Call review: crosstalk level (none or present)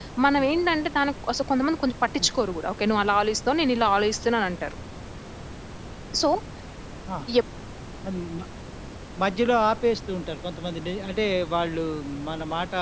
none